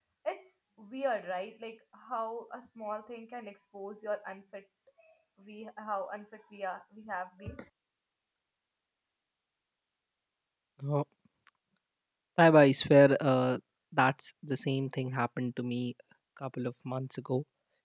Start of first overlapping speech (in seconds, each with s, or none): none